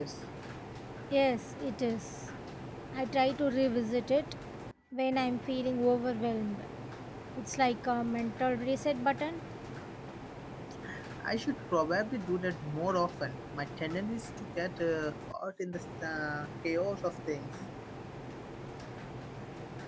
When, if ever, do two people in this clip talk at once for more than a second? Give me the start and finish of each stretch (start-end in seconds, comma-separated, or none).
none